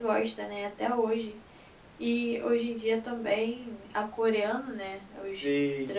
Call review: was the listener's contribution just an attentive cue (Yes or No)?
Yes